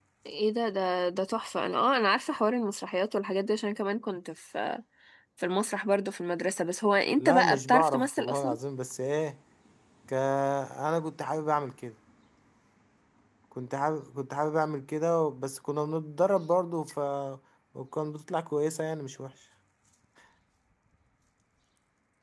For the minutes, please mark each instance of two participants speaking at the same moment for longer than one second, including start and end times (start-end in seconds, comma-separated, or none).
7.2-8.6